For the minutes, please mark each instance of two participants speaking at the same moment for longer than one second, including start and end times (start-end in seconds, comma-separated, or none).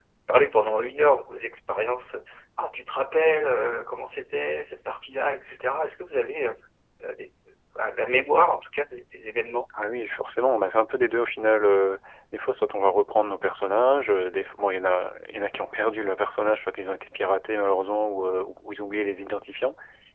none